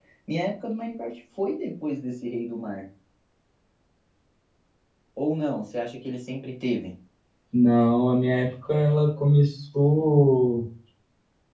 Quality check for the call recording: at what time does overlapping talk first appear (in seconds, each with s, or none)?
none